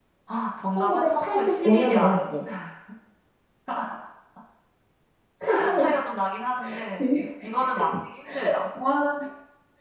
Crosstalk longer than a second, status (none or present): present